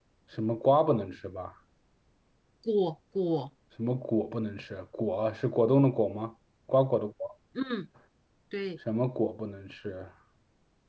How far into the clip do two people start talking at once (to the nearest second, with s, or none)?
none